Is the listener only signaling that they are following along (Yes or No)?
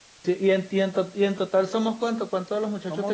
No